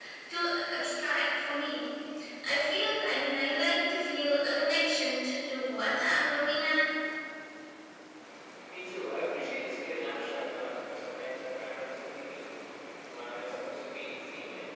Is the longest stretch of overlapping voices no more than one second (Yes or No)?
Yes